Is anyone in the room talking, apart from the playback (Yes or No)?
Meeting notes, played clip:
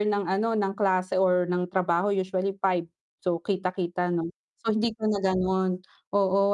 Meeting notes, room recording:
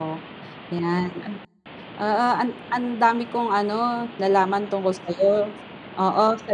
Yes